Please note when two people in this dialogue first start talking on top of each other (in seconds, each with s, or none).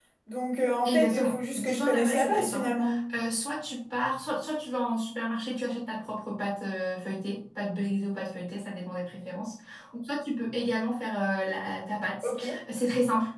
0.8 s